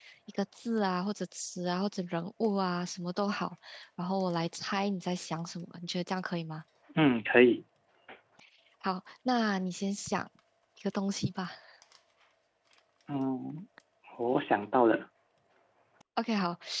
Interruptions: none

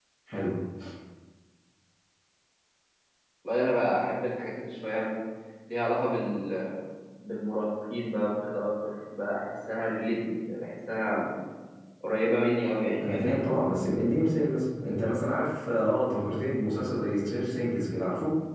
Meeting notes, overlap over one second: none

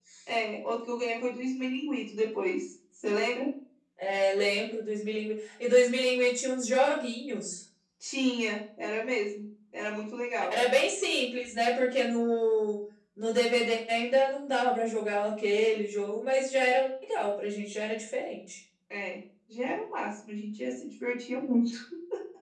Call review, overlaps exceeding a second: none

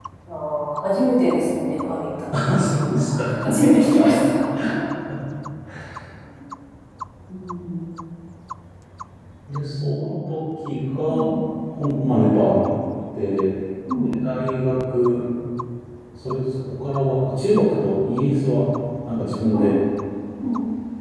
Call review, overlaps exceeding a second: present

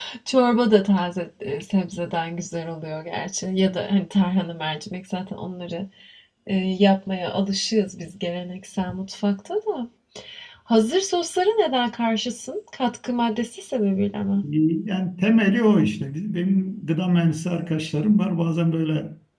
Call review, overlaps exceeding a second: none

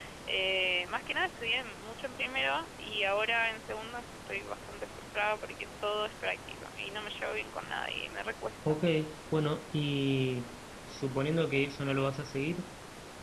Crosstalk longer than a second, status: none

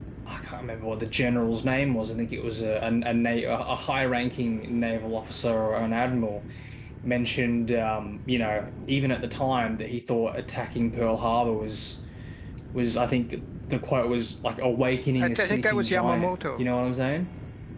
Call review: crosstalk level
present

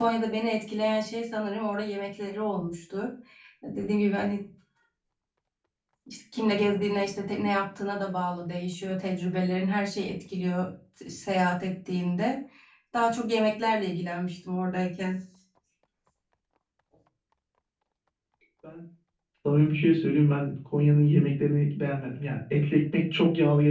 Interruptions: none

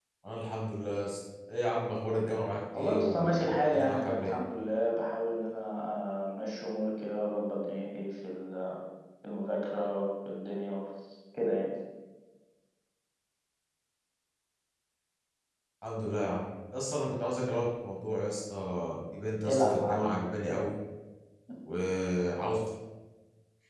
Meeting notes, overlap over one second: present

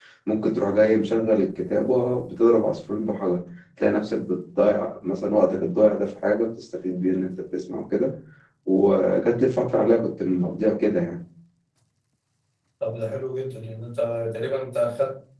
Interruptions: none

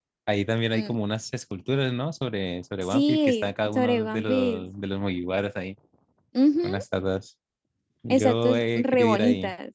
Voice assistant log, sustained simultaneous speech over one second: present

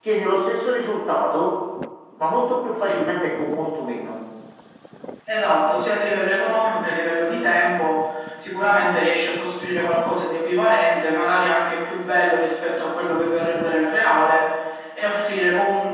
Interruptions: none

